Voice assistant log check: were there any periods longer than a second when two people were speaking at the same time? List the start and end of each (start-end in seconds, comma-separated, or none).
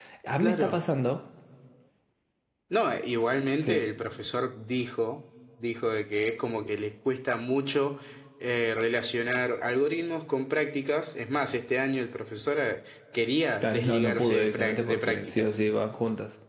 13.6-15.5